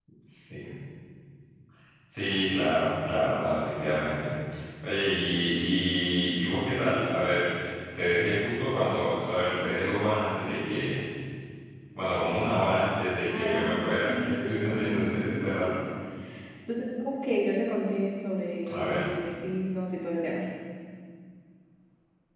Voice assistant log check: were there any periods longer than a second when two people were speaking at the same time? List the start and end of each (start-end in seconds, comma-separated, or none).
14.1-15.7